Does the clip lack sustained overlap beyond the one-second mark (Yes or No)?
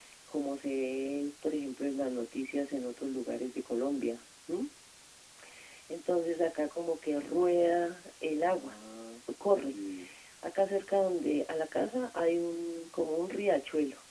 Yes